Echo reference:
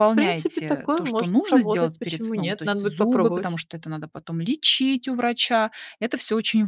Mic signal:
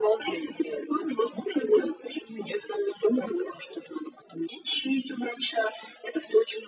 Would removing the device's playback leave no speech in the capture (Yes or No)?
Yes